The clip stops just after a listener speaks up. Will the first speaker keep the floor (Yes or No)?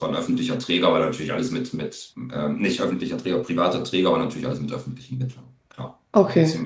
Yes